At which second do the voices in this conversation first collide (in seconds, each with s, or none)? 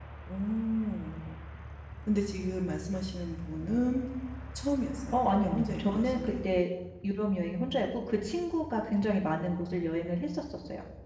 5.1 s